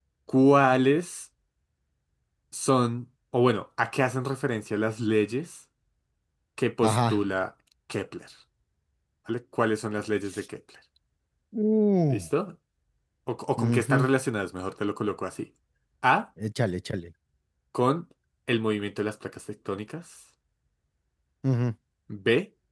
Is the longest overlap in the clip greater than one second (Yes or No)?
No